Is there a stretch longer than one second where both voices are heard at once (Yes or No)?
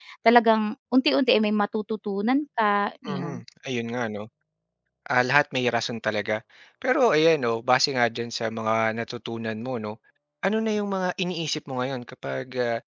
No